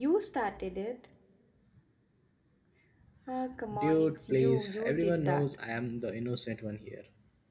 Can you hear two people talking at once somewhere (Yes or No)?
Yes